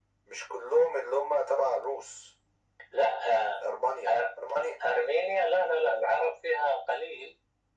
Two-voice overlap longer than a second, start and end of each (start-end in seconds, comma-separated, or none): none